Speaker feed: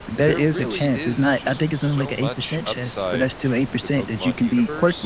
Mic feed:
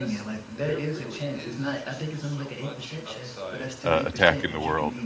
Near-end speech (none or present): present